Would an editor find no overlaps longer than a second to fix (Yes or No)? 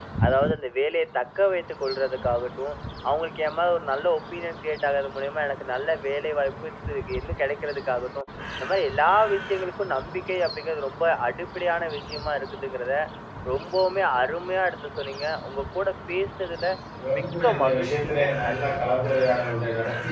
No